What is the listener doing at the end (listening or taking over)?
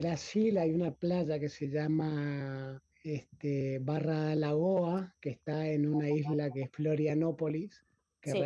listening